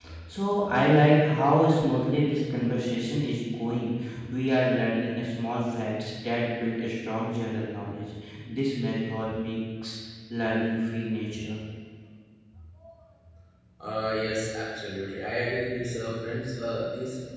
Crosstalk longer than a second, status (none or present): none